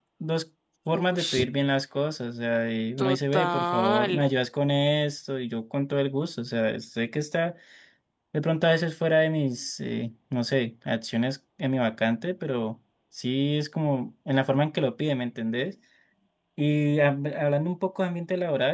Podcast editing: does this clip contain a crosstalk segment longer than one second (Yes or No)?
Yes